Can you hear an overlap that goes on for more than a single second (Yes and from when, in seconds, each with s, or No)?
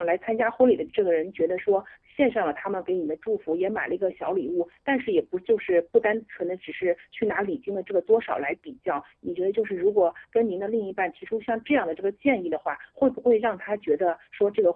No